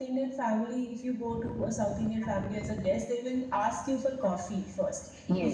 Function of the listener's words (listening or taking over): listening